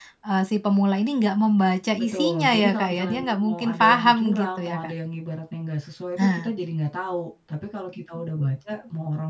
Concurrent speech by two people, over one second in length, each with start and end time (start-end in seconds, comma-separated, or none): 2.0-4.9